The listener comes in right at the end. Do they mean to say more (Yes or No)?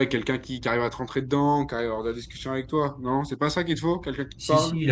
Yes